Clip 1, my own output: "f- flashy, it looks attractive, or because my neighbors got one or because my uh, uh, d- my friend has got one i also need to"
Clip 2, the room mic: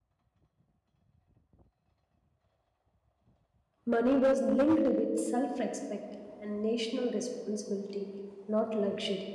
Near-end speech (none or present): present